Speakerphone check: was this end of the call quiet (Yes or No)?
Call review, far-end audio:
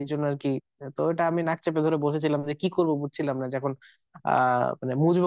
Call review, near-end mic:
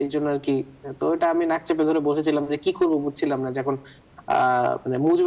Yes